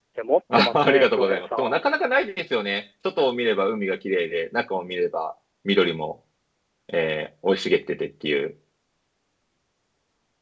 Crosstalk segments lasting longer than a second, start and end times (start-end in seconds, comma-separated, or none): 0.6-1.8